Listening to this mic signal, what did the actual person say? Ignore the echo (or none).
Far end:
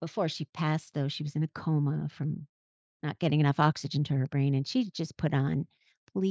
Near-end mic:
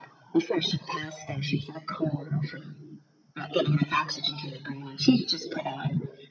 none